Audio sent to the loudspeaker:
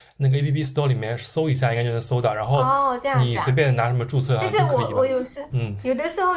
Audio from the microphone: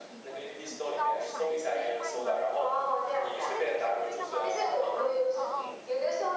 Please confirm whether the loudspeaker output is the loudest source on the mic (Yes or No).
Yes